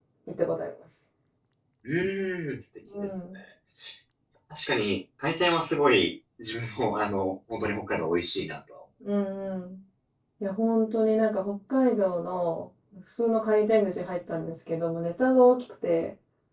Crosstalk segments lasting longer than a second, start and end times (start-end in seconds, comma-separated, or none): none